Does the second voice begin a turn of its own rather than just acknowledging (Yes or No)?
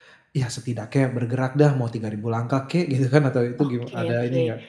Yes